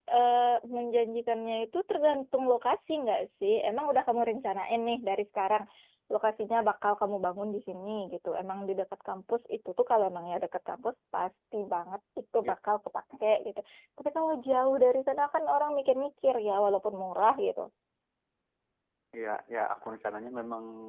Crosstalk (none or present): none